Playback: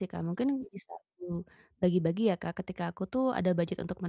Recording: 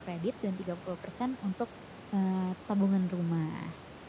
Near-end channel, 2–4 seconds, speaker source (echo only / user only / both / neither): user only